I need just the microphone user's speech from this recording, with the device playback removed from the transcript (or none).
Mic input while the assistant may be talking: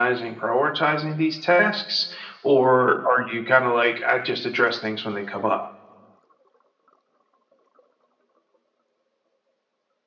none